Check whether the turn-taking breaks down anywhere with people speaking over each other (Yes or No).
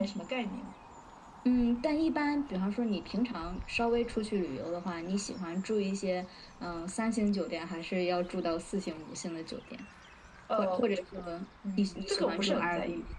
Yes